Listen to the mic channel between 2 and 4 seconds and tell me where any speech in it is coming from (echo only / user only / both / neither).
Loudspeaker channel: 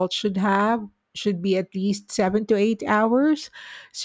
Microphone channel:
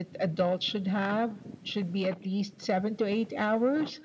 echo only